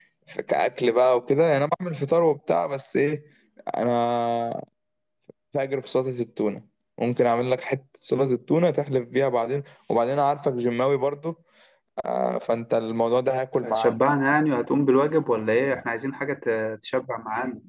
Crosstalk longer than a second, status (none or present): none